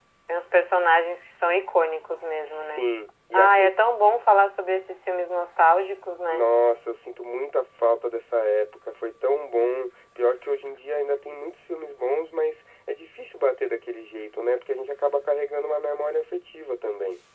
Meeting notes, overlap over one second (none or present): none